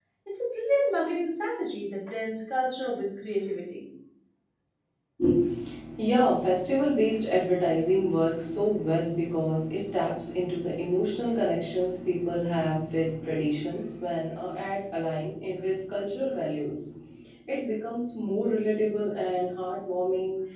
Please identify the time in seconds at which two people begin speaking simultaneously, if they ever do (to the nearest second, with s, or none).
none